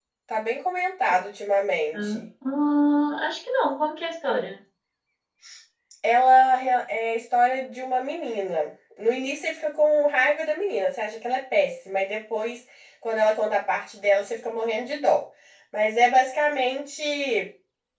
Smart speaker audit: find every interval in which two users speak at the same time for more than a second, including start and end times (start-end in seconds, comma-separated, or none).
none